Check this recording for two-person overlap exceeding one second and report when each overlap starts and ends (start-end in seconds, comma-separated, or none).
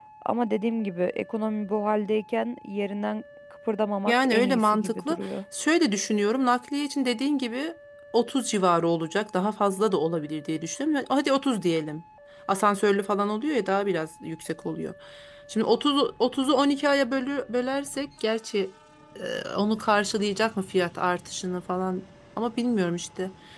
4.1-5.3